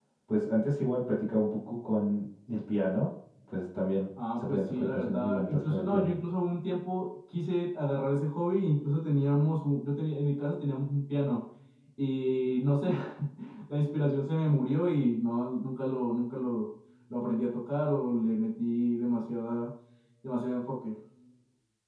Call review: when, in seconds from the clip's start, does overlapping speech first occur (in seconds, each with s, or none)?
4.2 s